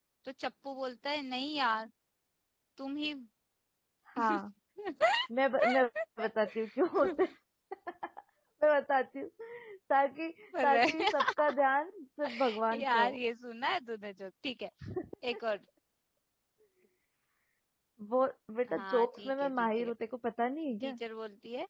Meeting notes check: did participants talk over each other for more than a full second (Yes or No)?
Yes